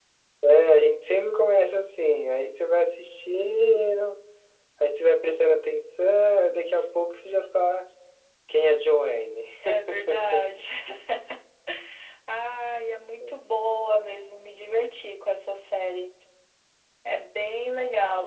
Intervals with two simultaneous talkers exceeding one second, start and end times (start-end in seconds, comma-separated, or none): none